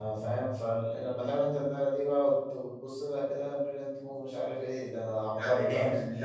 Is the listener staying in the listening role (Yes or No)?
No